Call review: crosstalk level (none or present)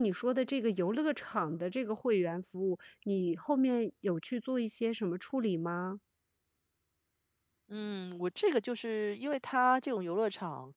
none